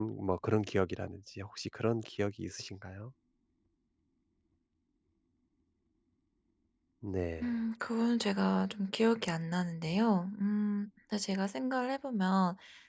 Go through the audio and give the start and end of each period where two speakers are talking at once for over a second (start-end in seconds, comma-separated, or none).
none